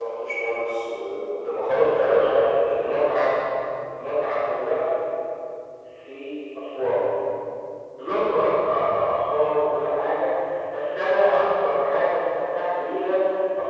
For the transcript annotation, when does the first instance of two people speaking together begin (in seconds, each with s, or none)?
1.7 s